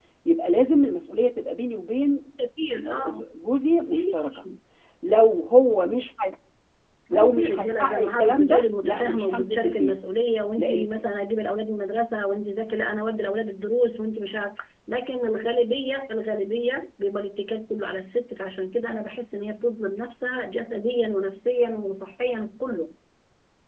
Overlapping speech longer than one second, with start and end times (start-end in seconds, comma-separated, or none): 7.1-10.0